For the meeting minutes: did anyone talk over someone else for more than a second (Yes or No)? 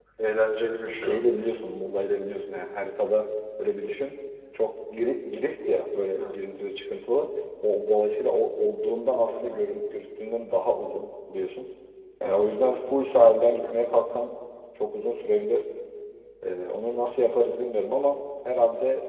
No